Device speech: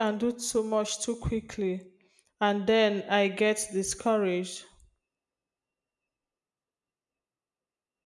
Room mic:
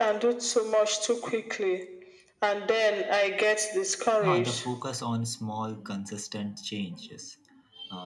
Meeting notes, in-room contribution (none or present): present